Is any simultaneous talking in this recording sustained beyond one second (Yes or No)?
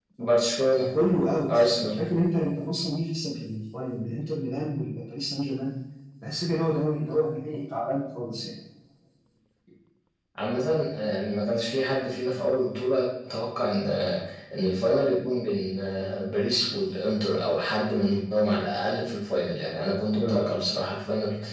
No